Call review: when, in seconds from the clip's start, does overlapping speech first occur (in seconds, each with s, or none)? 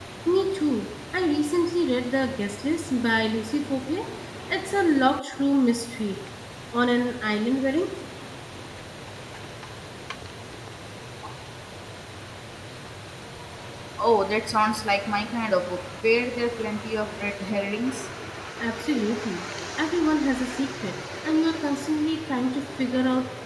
none